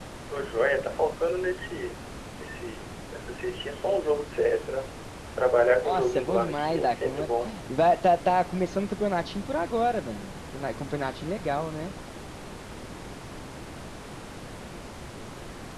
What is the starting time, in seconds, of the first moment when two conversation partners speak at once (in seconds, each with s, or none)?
5.8 s